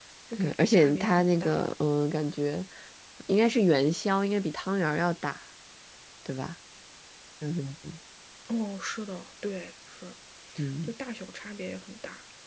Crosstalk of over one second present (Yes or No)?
Yes